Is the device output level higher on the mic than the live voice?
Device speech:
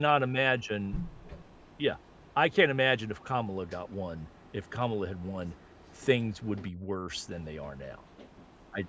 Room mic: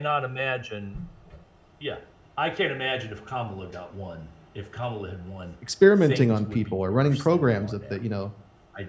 No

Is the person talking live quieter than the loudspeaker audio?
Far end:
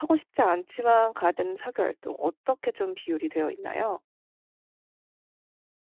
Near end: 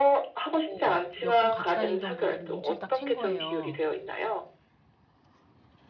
Yes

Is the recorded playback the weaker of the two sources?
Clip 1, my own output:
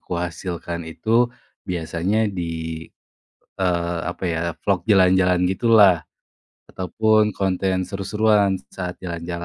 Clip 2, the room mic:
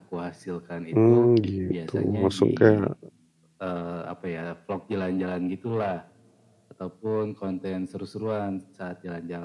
Yes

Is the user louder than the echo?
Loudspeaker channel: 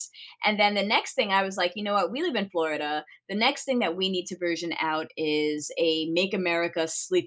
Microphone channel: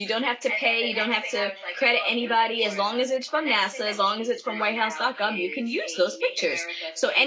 Yes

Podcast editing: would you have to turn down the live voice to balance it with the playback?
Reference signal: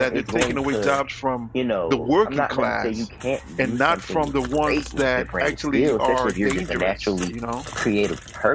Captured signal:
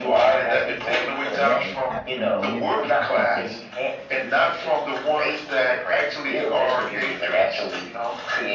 No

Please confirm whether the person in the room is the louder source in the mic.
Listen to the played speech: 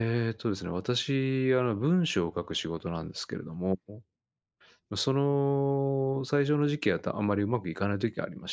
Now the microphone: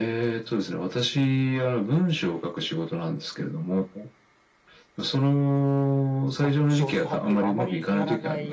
No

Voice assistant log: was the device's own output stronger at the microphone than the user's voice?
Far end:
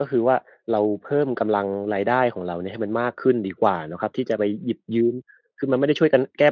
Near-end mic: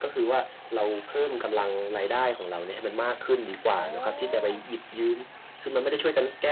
Yes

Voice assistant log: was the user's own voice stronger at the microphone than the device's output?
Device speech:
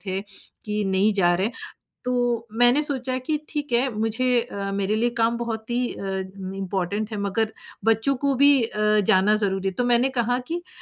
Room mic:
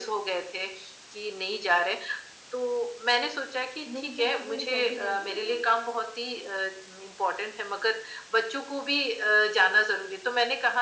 No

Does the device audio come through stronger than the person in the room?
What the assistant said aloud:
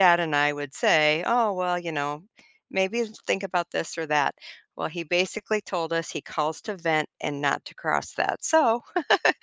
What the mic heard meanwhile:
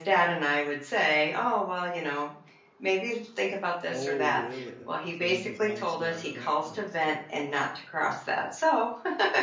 Yes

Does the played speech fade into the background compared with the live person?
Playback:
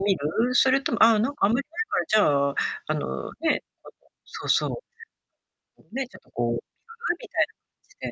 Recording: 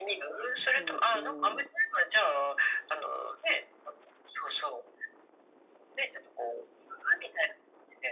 No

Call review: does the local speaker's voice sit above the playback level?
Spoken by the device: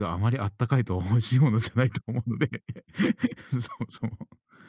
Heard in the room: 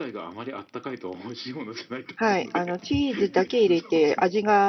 Yes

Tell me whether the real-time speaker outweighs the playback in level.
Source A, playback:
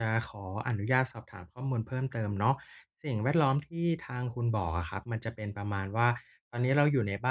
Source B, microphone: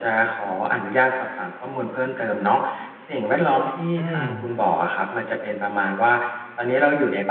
Yes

